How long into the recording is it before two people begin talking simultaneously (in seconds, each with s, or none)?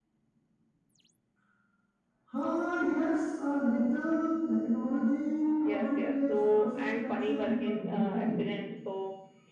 5.6 s